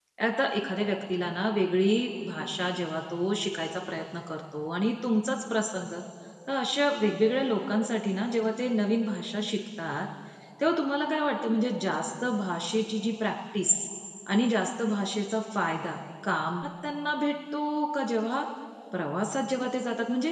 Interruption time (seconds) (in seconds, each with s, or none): none